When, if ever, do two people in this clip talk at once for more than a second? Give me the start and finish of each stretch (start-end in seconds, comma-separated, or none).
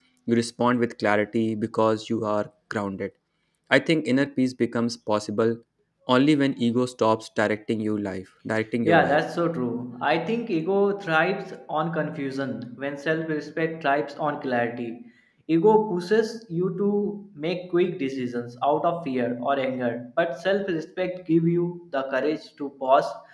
none